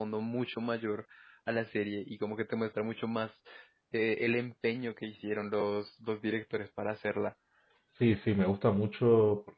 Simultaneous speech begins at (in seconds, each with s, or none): none